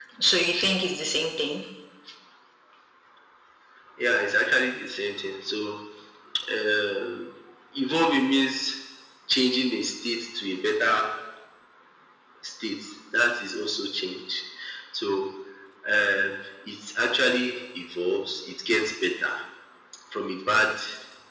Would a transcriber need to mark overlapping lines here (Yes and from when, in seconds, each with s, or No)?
No